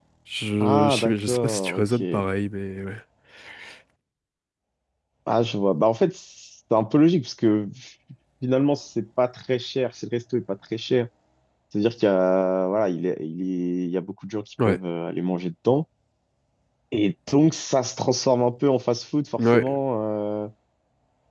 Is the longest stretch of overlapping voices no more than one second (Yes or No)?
No